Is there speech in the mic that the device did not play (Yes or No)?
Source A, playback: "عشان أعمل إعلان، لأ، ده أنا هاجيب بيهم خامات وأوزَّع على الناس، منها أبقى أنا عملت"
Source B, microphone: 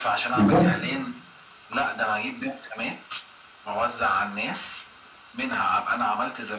Yes